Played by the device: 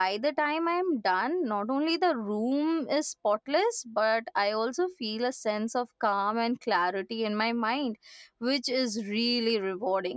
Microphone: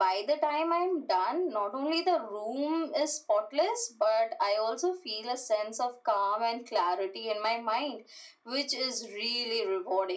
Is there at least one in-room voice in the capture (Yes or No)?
No